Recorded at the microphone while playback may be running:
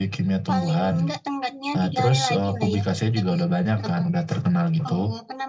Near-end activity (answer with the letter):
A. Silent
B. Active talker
A